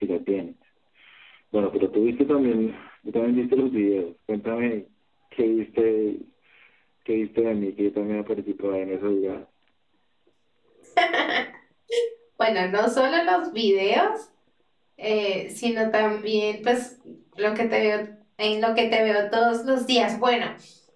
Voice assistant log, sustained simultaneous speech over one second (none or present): none